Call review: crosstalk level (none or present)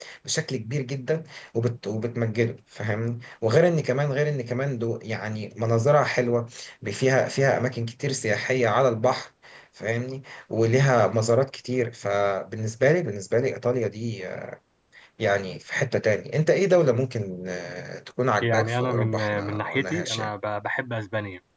present